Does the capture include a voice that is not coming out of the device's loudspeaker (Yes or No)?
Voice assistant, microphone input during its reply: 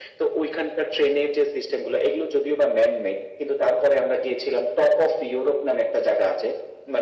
No